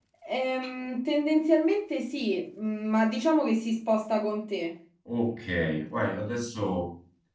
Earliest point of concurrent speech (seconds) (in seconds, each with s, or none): none